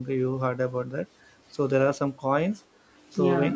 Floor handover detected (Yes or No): No